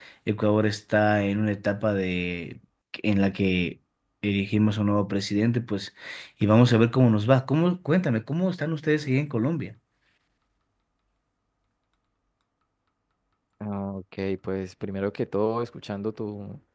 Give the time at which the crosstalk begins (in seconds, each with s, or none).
none